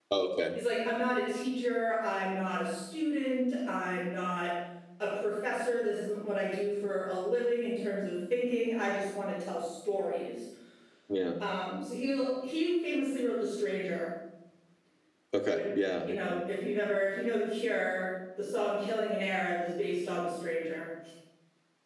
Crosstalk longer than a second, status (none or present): none